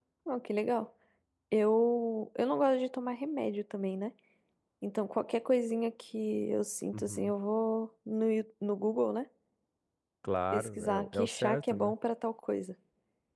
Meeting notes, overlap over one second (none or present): present